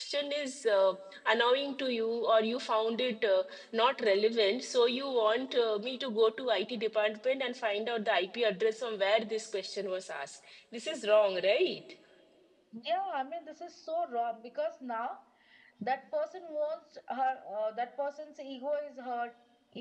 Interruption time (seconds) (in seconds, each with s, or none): none